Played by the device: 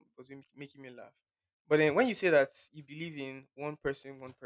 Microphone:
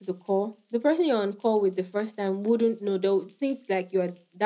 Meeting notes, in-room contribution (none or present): present